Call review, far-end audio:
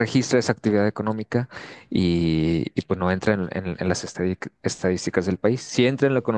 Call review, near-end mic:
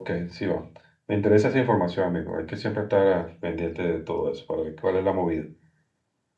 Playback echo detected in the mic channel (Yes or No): No